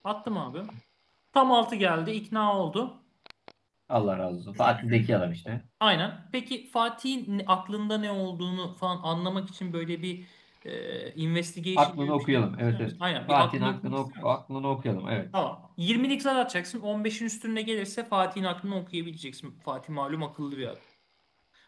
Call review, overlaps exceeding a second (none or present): present